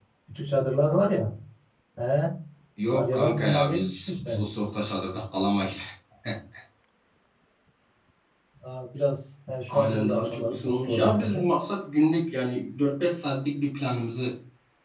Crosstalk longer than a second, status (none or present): present